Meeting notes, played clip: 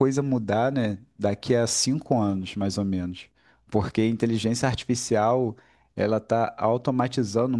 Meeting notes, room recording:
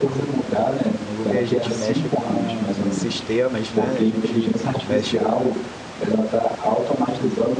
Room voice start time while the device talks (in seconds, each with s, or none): 1.0 s